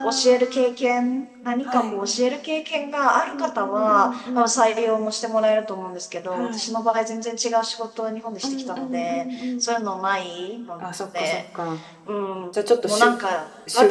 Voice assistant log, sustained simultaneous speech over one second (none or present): present